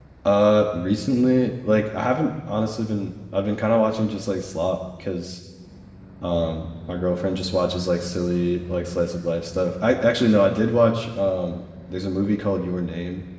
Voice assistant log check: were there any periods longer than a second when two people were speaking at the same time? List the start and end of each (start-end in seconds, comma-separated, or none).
none